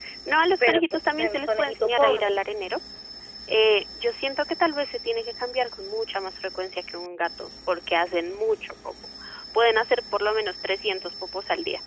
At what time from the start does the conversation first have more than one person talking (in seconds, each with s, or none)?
0.6 s